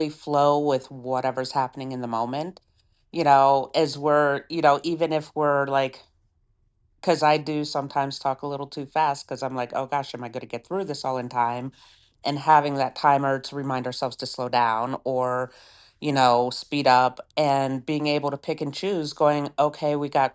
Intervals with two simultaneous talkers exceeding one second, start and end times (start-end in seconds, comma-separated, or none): none